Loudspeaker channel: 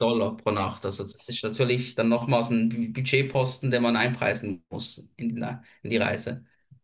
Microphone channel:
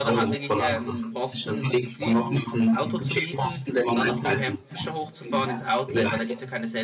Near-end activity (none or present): present